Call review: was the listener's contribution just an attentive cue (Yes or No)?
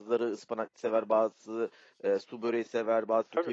Yes